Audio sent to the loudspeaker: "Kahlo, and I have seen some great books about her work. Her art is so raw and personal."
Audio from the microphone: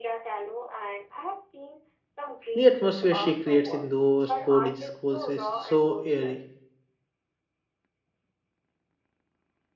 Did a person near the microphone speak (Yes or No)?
Yes